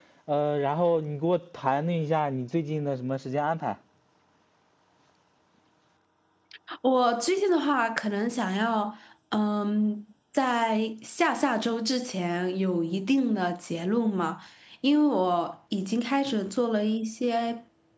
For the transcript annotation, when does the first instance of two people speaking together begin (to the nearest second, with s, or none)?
none